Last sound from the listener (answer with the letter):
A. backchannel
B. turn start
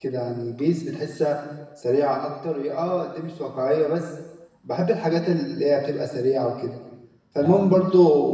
A